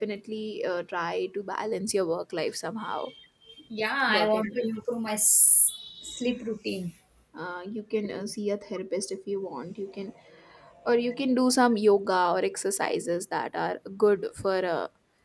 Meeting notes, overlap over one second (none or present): none